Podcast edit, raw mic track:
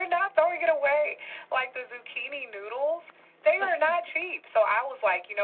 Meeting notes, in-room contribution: none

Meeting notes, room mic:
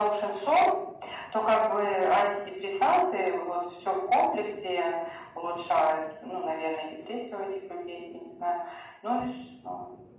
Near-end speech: none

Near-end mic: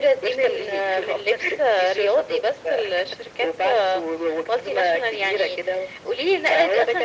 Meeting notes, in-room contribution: none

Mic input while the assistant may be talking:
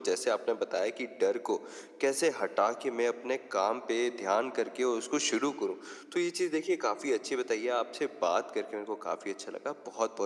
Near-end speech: none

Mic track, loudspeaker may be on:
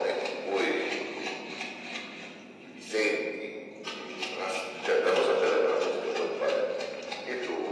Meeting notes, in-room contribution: none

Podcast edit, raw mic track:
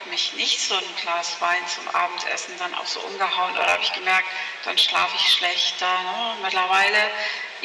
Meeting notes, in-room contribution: none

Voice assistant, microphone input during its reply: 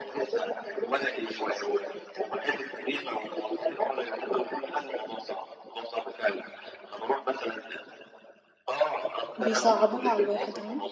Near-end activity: present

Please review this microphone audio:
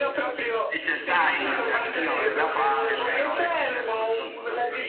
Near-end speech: present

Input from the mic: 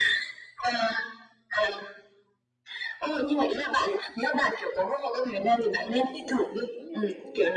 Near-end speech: present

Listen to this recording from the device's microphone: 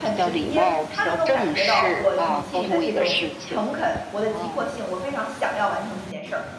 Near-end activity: present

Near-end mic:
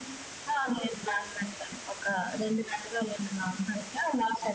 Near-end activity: none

